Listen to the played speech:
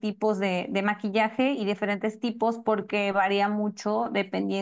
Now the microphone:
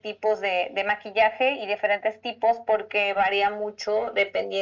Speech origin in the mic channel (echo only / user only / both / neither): echo only